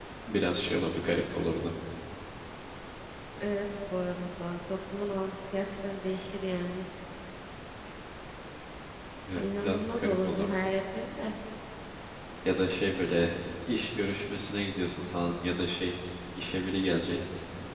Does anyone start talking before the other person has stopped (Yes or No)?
Yes